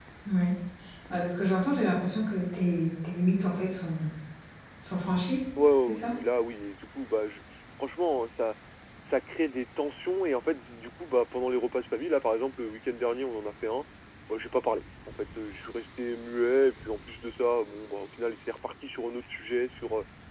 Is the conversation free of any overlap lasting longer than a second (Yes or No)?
Yes